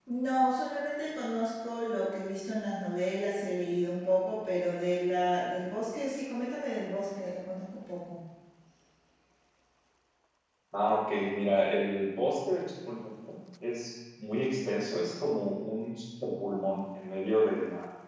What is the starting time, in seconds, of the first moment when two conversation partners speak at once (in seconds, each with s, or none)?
none